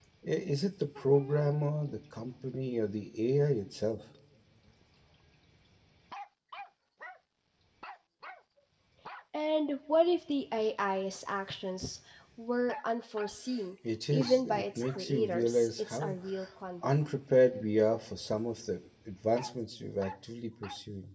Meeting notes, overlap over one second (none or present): present